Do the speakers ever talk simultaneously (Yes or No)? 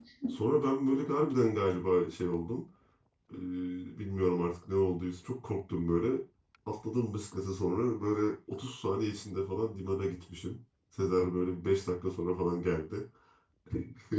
No